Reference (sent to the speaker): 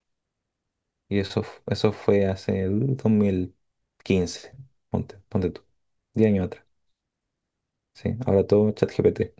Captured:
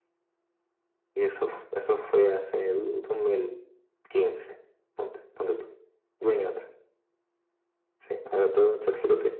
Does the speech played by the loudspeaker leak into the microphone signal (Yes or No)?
Yes